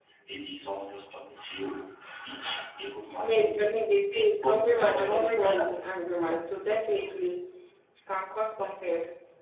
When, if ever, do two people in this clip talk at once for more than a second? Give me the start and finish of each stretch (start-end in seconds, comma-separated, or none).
4.4-5.7